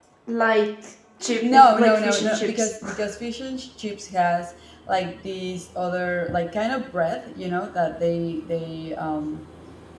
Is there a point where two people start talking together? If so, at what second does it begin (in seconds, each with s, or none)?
1.2 s